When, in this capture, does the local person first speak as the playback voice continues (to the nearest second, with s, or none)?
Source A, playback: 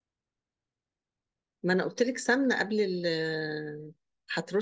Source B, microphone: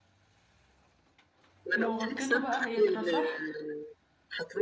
2 s